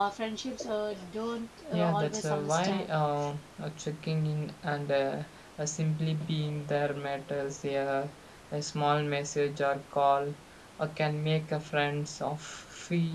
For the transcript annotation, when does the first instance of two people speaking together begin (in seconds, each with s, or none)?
1.7 s